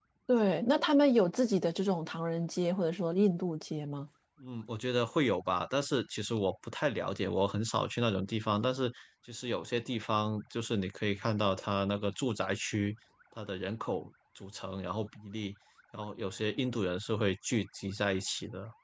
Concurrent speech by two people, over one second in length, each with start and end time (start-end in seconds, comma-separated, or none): none